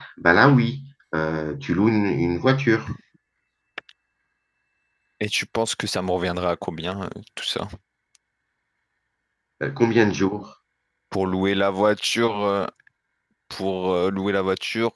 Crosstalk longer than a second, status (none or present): none